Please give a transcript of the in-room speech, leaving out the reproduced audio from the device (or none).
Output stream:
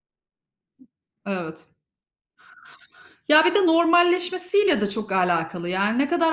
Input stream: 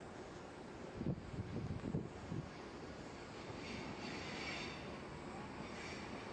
none